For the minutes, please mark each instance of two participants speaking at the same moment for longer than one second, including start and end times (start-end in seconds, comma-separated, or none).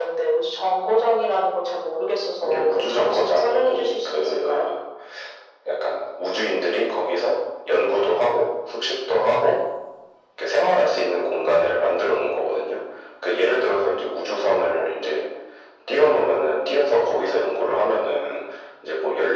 2.4-4.7